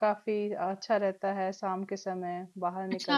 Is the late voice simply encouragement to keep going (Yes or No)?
No